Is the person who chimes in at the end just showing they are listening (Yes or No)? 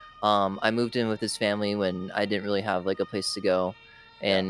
Yes